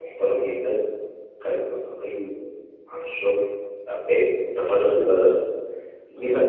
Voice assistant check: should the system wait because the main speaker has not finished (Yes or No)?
Yes